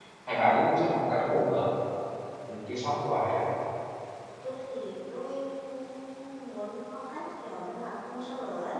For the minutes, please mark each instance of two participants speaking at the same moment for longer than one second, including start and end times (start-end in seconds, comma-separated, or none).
none